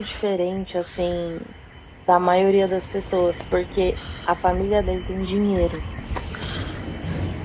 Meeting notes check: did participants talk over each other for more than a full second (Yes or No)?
No